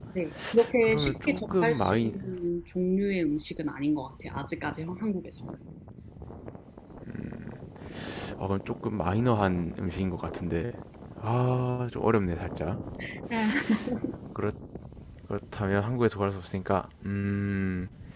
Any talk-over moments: Yes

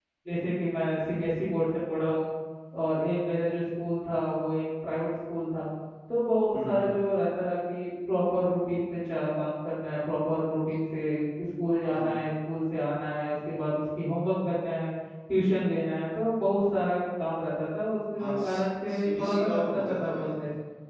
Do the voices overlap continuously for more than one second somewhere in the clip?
Yes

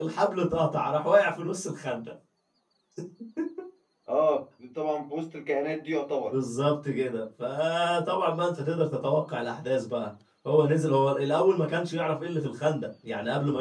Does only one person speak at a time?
Yes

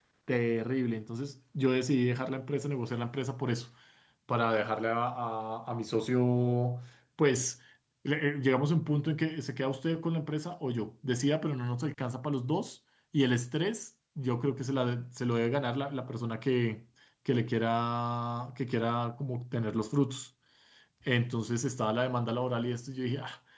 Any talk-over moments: No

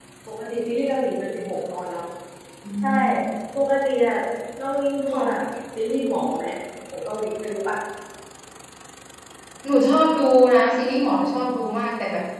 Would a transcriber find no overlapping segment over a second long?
Yes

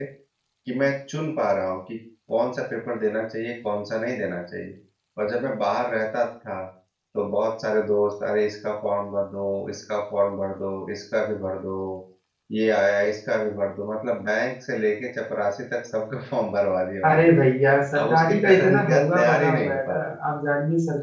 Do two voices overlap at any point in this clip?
Yes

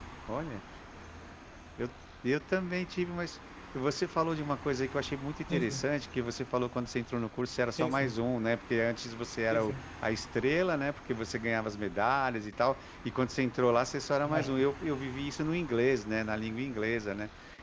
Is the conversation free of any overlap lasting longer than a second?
Yes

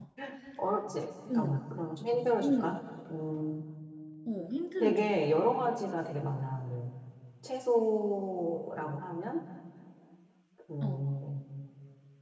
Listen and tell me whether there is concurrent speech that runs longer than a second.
No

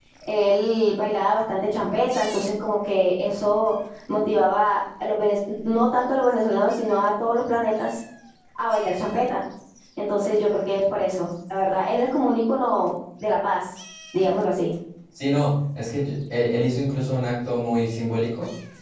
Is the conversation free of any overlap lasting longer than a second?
Yes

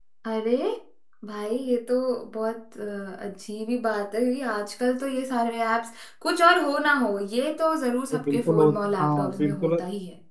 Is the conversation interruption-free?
No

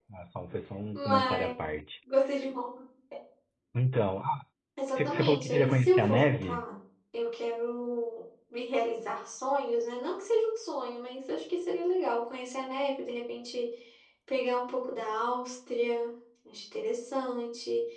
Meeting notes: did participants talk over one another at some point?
Yes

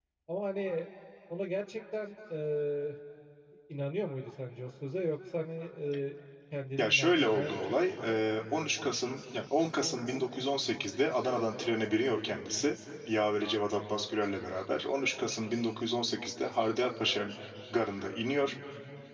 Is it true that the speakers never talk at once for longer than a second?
No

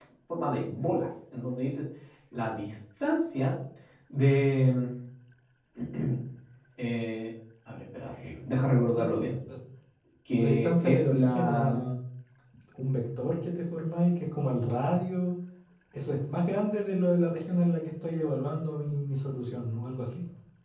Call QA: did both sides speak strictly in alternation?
No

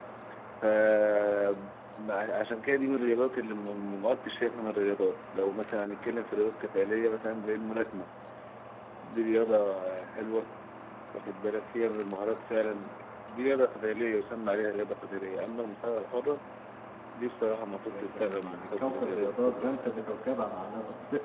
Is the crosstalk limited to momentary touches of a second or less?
No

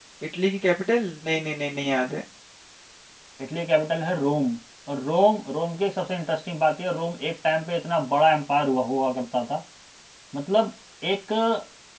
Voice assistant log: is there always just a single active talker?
Yes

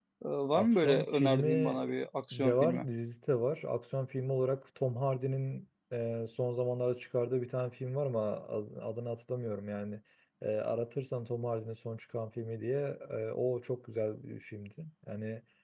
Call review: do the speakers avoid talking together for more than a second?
No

